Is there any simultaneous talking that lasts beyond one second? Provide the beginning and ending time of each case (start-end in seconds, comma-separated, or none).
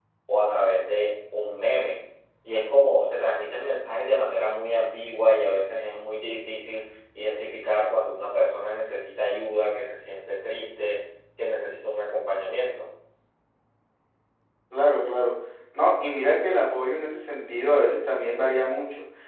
none